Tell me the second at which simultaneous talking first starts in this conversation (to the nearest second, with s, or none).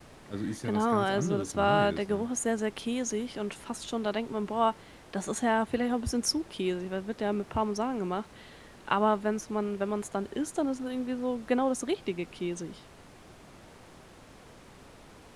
1 s